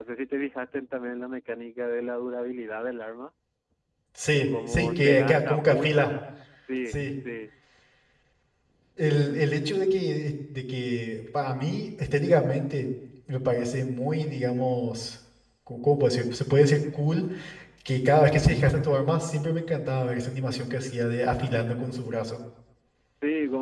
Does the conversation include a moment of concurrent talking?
Yes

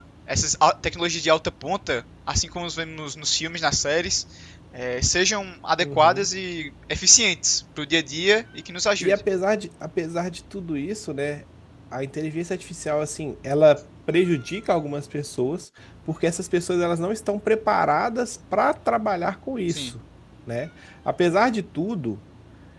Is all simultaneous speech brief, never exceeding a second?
Yes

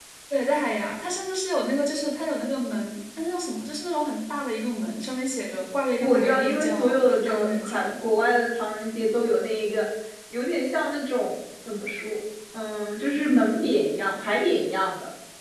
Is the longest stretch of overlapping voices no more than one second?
No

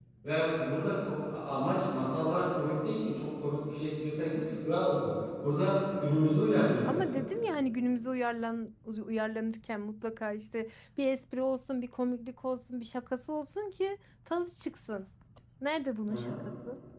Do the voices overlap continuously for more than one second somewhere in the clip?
No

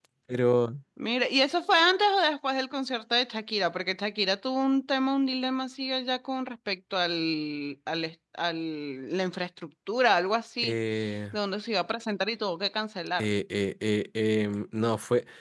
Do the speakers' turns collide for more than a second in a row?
No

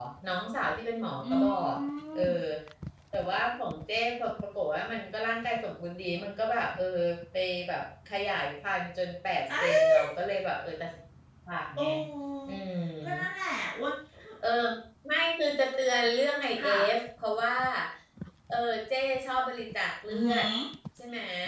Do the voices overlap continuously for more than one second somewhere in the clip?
No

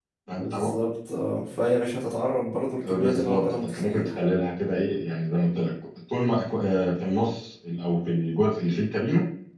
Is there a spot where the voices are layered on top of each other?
Yes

